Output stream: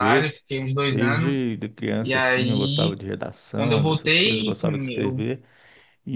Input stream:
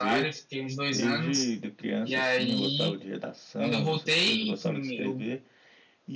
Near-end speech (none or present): none